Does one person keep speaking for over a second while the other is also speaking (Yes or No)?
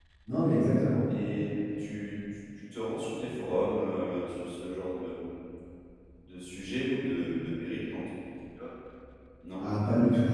No